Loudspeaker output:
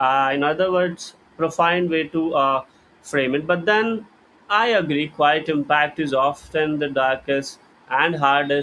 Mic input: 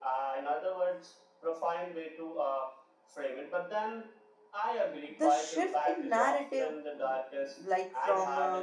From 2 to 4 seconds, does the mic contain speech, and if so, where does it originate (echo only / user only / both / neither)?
echo only